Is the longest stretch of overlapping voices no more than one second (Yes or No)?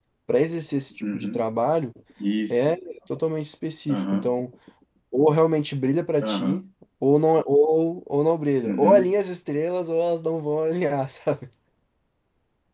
Yes